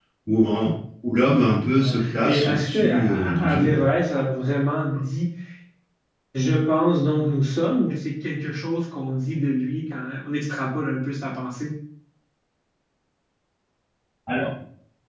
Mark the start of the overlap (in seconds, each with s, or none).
1.7 s